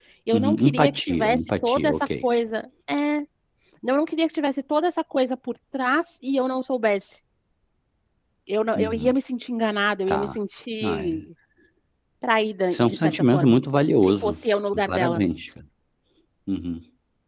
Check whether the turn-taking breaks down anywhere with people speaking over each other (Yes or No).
Yes